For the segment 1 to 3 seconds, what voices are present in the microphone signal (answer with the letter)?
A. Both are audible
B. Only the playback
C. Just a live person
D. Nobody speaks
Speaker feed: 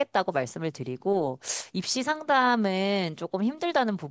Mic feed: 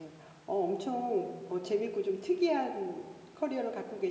C